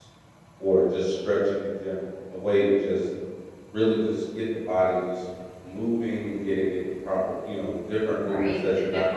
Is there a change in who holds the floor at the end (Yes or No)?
Yes